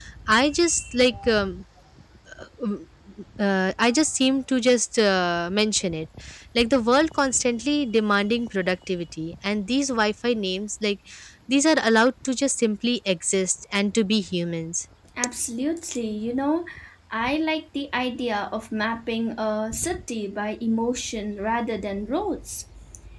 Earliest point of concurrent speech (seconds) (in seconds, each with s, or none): none